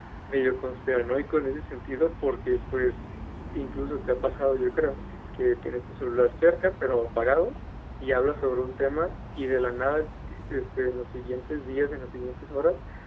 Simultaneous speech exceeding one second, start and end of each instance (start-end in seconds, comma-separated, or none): none